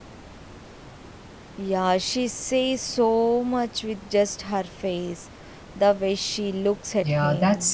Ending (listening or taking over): taking over